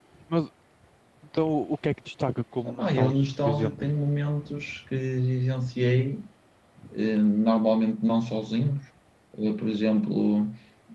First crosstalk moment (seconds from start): 2.6 s

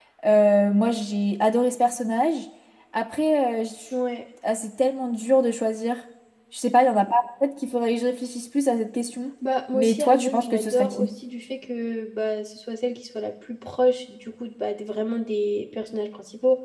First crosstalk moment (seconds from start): 9.7 s

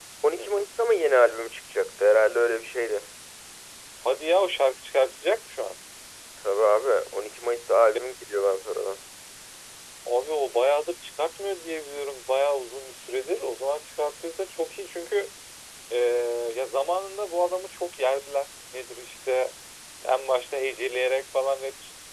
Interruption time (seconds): none

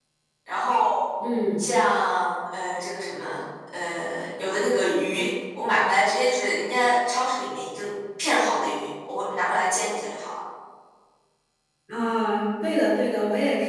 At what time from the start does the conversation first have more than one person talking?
none

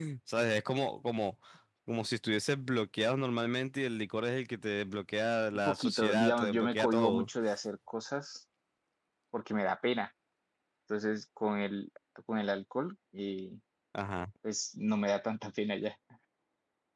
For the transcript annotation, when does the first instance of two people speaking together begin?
5.5 s

